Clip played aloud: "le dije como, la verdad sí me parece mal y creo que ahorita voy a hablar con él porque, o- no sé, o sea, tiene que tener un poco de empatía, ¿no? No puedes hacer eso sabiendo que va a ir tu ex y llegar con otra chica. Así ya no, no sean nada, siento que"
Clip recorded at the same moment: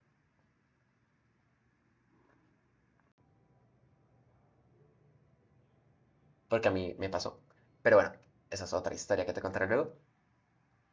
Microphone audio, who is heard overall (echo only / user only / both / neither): user only